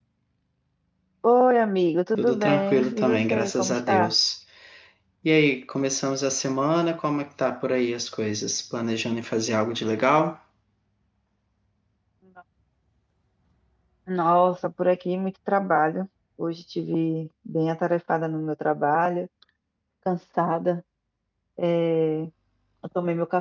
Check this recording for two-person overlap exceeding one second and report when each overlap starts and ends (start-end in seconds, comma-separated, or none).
2.2-4.1